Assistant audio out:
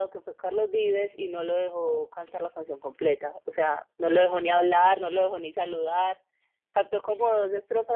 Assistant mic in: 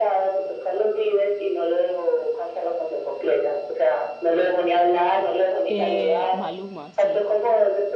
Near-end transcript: Eh, Maluma, sí,

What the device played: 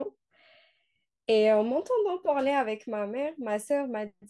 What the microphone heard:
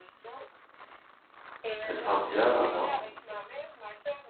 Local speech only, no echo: Elle sera bien là-bas.

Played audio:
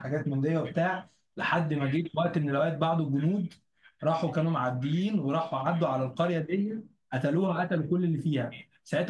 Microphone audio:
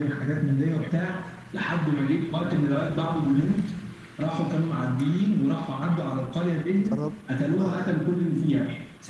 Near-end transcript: ضربوا آه،

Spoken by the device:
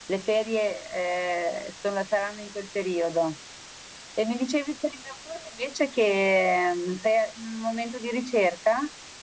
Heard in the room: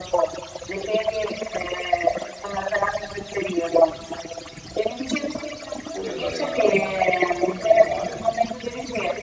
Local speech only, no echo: oppure andare da da qualche parte a lavorare.

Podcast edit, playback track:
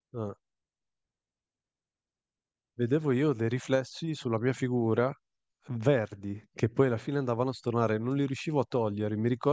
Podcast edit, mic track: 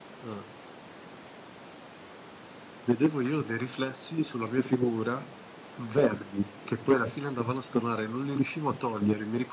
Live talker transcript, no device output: none

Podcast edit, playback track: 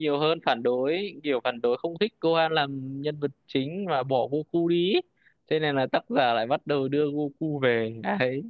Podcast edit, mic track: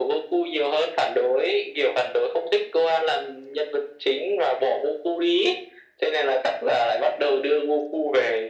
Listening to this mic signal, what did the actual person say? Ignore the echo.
none

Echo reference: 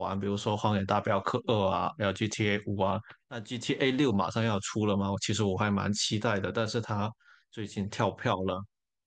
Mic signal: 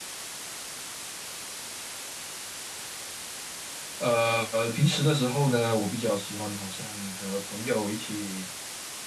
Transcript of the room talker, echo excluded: 呃，平时的时候呢，我比较喜欢好像和朋友一起

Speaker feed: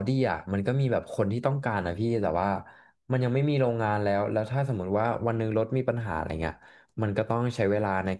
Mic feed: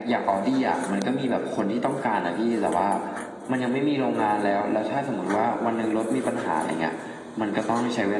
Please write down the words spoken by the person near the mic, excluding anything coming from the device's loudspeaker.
none

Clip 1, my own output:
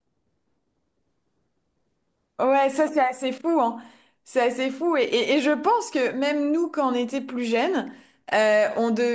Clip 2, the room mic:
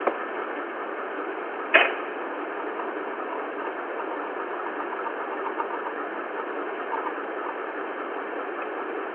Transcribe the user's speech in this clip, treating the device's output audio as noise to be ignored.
none

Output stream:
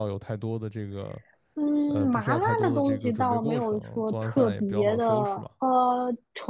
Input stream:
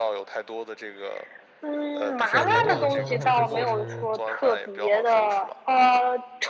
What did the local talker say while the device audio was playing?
我晚上的话就是。

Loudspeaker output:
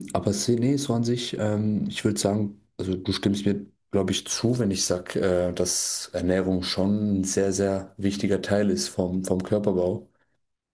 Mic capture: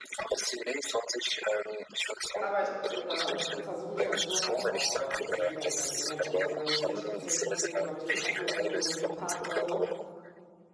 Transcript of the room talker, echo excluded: Aber ich äh, versuche mich halt so halt auch äh, zu bewegen. Also dann irgendwie am Tag irgendwie dann ein bisschen spazieren zu gehen oder mich mit einem Kaffee oder eine Runde durch den Park oder so.

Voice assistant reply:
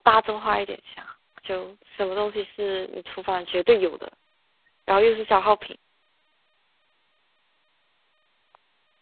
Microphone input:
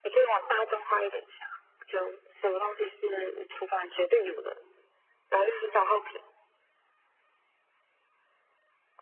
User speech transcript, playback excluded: none

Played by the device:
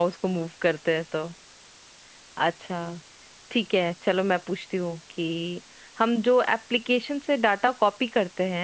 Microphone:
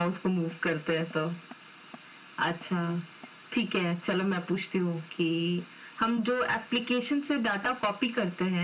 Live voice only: none

